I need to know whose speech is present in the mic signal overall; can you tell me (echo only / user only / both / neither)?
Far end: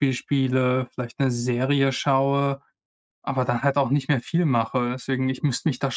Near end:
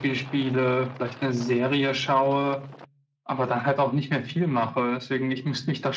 echo only